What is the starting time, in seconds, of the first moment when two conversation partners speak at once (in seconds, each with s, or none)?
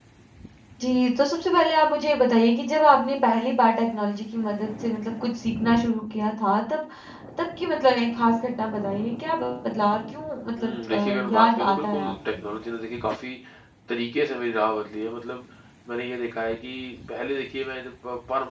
10.6 s